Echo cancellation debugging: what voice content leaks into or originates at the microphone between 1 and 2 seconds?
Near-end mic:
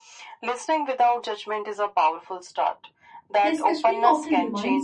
echo only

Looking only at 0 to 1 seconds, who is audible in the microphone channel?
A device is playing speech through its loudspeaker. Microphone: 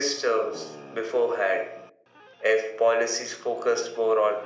echo only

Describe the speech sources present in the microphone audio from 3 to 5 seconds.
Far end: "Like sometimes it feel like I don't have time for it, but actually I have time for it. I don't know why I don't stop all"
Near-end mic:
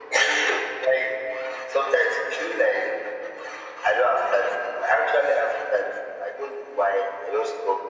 echo only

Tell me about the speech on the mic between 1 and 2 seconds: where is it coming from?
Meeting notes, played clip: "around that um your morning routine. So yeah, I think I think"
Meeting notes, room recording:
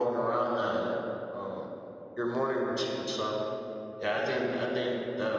echo only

